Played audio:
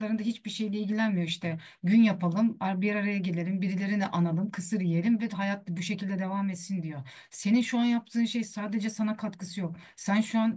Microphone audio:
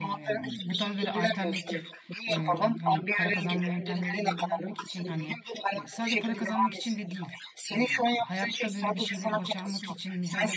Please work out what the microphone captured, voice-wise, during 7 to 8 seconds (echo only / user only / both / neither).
both